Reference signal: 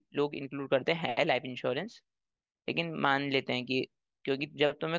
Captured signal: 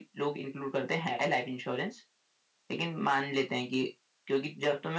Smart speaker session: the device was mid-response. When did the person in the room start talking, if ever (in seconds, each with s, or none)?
none